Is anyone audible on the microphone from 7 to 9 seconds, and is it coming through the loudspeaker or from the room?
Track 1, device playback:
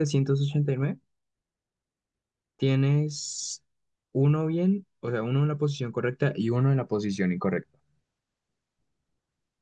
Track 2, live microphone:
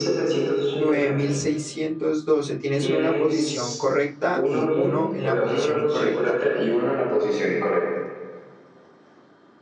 echo only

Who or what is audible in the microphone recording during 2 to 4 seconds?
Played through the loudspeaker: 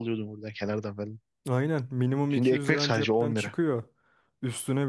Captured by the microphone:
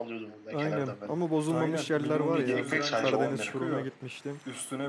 both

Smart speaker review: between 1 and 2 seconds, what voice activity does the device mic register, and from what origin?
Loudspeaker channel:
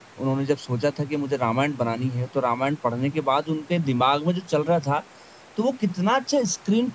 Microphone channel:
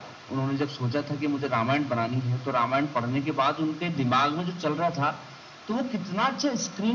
echo only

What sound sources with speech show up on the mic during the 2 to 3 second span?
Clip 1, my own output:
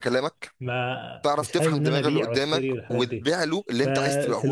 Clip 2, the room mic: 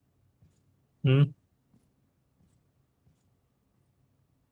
neither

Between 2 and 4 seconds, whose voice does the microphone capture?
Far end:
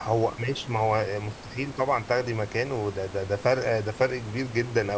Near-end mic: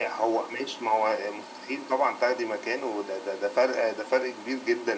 echo only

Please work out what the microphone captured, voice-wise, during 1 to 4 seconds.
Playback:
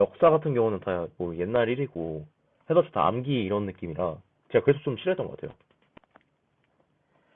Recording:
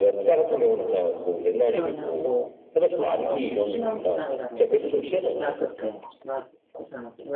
both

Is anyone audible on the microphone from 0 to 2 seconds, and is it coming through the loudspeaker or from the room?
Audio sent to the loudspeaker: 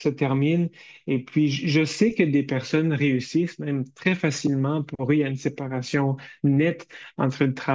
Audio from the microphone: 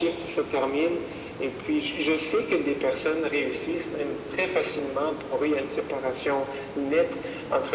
echo only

